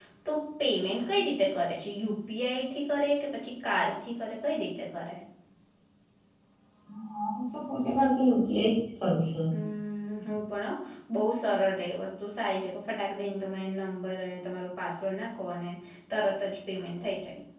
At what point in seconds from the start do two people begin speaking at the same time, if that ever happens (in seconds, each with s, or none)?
none